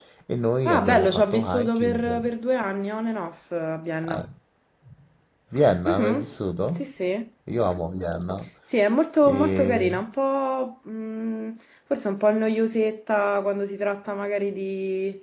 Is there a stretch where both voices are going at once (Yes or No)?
Yes